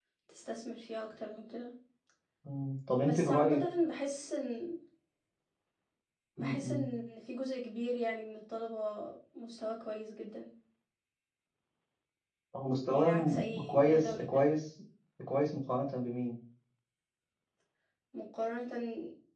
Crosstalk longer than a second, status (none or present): present